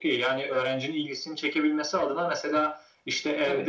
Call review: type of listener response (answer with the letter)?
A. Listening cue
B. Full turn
A